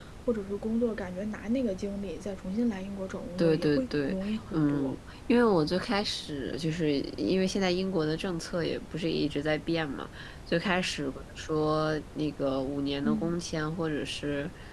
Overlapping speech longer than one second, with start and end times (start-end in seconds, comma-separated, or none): 3.4-4.9